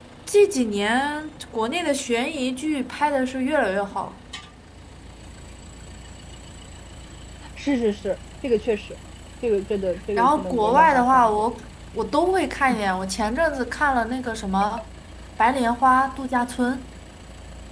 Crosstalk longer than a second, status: present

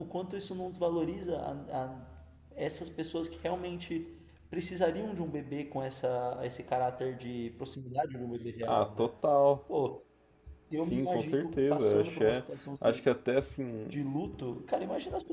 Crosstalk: present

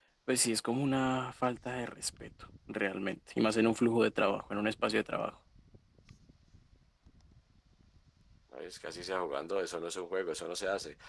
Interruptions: none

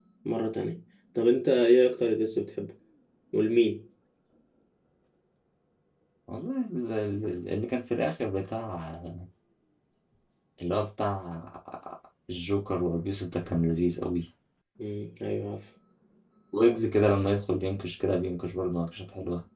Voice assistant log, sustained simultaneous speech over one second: none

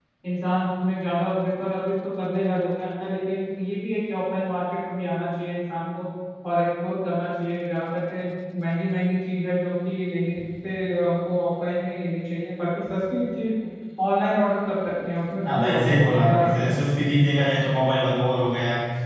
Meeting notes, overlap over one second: present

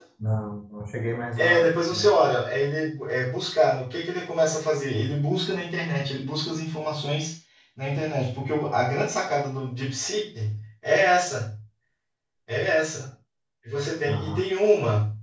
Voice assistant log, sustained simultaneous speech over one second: none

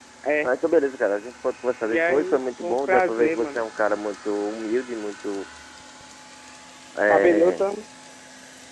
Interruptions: present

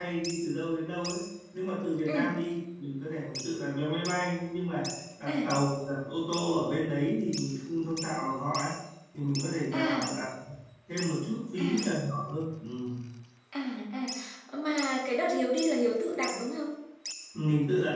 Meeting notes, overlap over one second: none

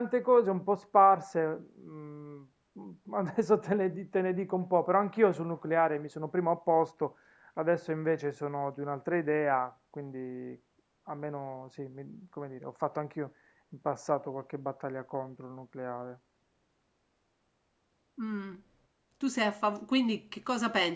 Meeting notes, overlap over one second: none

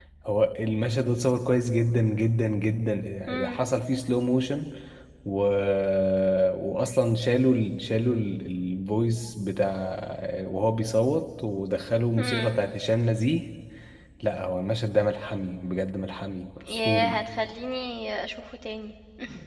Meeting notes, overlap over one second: none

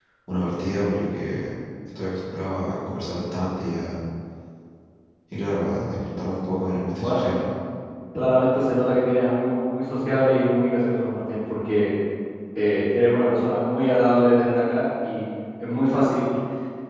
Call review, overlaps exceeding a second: none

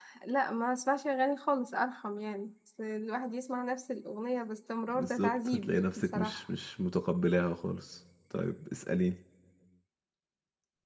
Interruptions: present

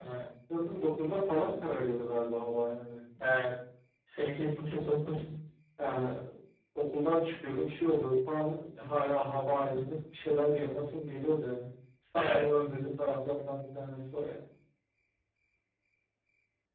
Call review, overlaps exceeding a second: none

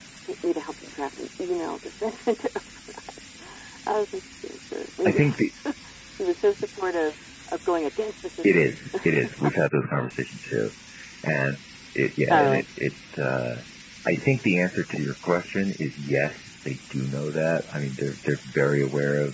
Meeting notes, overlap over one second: none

